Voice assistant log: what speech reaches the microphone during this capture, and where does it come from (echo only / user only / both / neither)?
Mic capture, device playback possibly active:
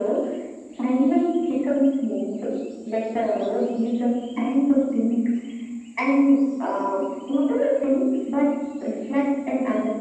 echo only